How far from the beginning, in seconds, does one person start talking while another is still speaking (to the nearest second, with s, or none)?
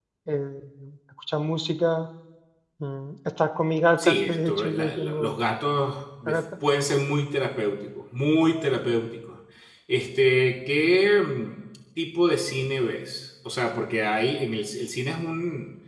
4 s